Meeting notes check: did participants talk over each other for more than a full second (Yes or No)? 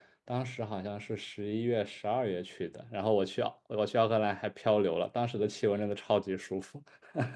No